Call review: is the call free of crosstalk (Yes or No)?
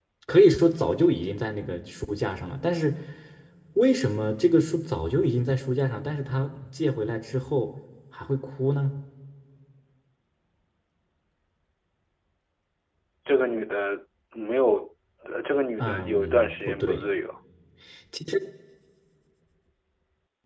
No